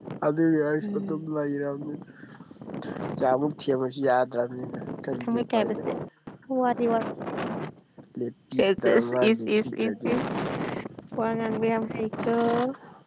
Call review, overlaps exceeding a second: present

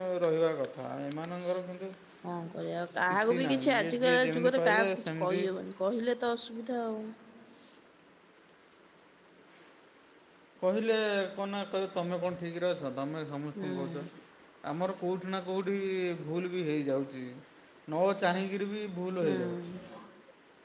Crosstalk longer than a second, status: present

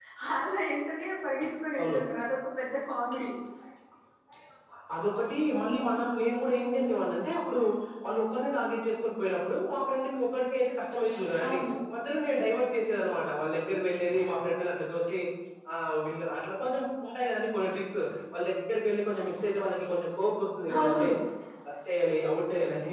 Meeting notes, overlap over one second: none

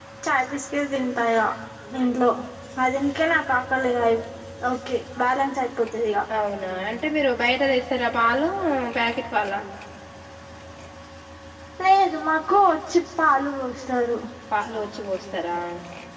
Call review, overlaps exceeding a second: none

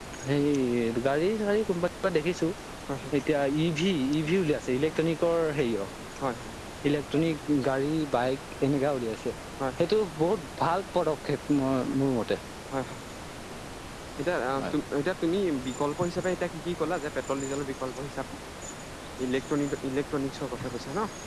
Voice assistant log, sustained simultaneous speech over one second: none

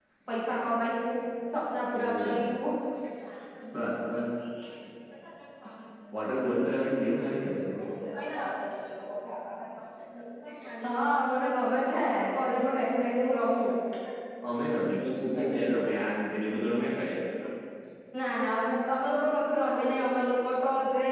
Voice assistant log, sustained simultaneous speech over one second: none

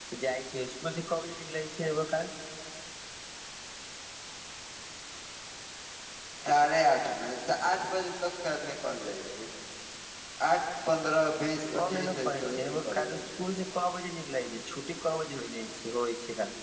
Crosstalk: present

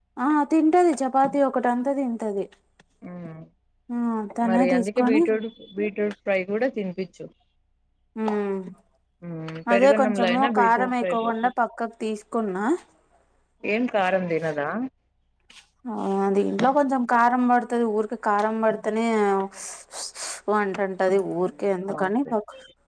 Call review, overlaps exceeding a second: present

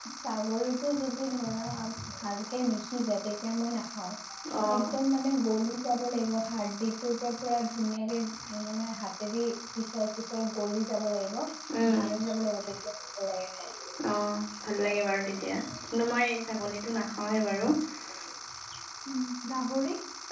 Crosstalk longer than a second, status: none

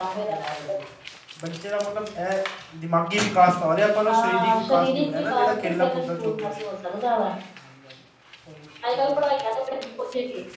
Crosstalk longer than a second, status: present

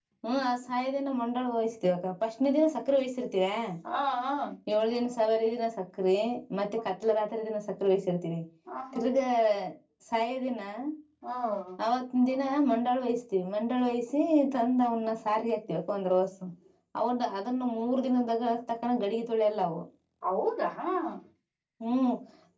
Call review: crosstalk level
none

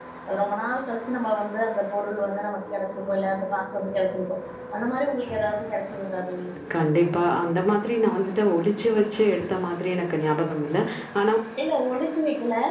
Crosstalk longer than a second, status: none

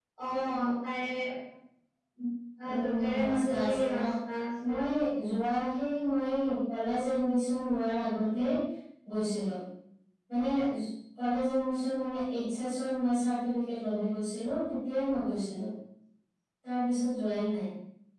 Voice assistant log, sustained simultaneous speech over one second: present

